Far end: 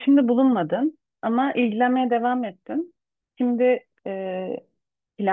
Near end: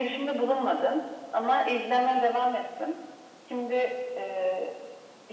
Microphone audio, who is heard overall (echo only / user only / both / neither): echo only